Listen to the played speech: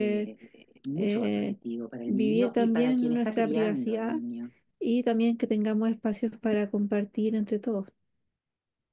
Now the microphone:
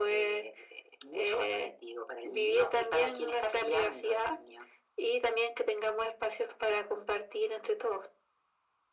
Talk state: echo only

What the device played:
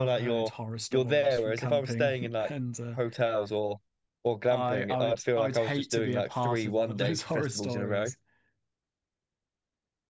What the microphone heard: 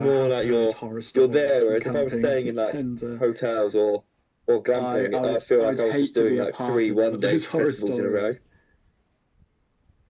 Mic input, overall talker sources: echo only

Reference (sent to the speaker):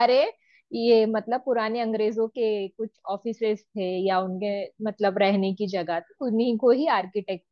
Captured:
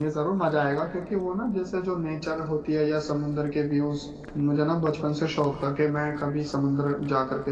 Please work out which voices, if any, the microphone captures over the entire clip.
user only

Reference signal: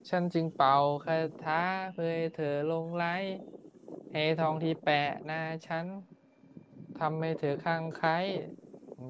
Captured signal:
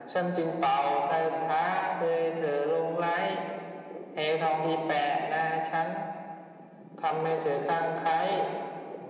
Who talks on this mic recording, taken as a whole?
echo only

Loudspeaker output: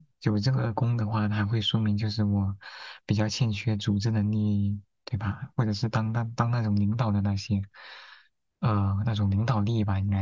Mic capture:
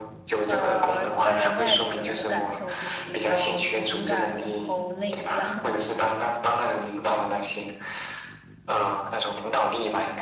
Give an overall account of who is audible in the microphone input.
both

